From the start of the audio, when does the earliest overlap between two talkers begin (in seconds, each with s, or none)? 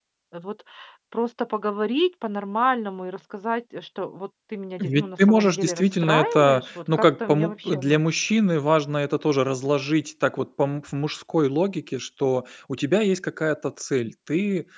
4.8 s